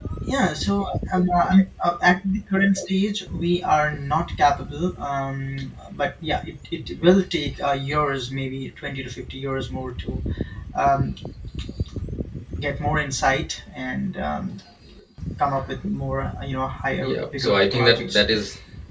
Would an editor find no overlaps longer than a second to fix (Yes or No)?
No